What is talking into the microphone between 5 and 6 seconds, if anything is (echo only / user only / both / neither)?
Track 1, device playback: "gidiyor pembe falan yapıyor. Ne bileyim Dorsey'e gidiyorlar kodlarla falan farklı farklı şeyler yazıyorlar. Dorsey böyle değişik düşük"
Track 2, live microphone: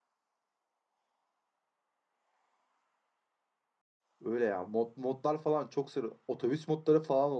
user only